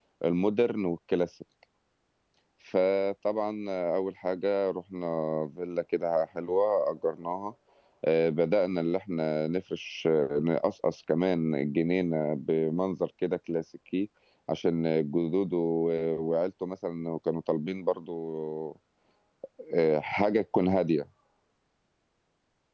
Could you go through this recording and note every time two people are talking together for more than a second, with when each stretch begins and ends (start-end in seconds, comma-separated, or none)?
none